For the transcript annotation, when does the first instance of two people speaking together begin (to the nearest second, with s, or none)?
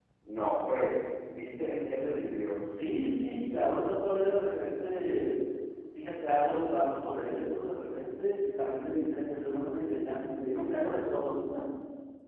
none